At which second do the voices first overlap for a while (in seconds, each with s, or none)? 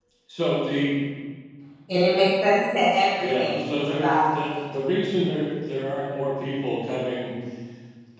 3.2 s